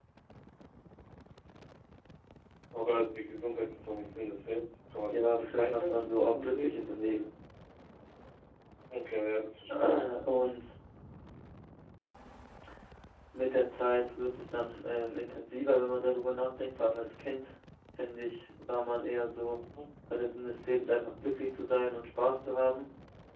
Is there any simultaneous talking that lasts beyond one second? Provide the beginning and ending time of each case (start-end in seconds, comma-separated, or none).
5.1-6.8